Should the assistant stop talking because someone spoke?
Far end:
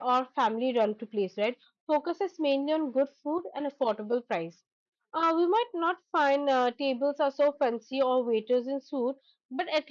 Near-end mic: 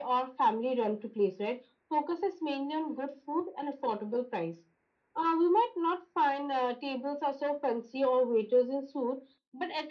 No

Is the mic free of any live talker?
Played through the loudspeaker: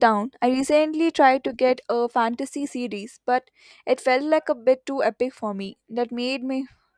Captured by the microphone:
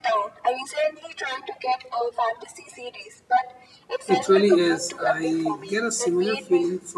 No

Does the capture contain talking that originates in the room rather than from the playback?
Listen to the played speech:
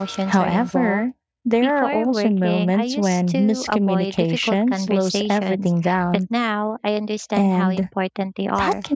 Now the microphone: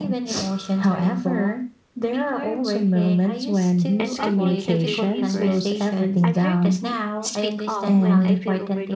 Yes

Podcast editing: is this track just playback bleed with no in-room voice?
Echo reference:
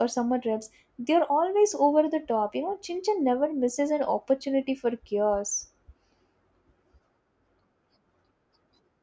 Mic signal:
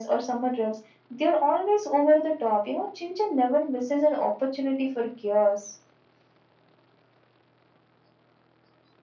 Yes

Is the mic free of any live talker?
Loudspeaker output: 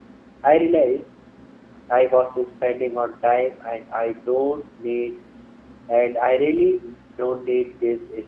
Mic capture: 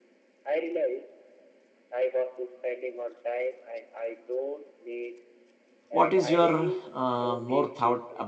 No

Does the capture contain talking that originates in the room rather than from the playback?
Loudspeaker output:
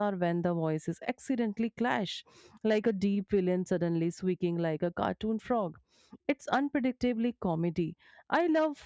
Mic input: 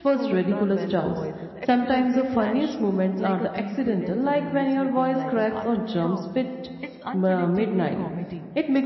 Yes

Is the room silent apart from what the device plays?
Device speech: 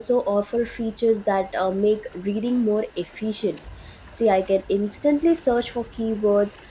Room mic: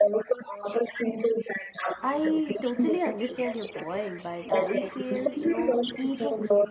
No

